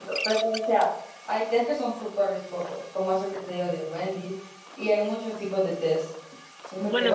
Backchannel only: No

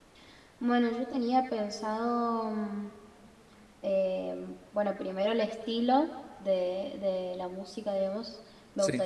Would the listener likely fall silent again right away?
Yes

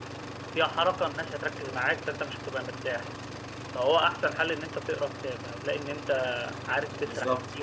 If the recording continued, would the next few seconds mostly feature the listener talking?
No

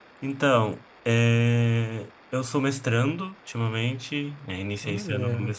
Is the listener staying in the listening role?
Yes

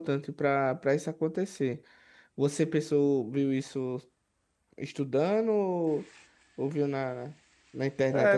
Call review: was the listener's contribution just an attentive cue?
No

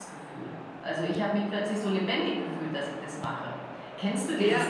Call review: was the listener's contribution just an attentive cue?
No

